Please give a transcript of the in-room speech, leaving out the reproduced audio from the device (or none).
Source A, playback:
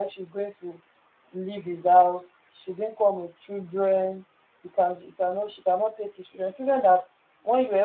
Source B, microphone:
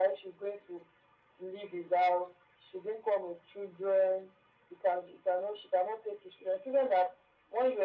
none